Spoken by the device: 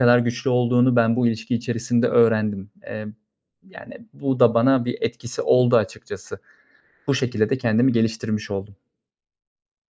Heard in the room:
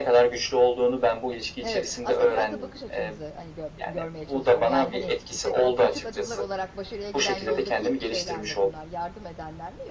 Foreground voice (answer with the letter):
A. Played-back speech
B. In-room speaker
A